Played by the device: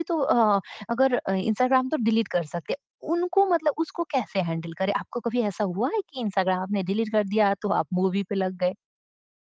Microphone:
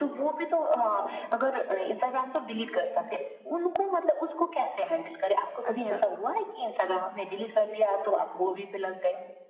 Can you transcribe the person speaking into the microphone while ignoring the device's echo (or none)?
अच्छा।